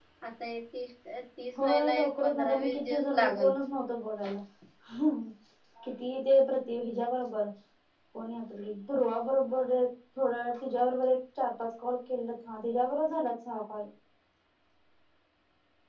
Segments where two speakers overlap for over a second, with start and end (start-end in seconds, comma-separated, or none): 1.6-3.5